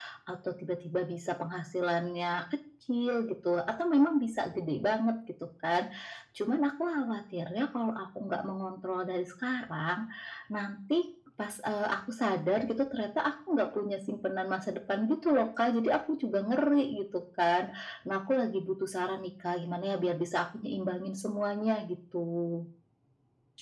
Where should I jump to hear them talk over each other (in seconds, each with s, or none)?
none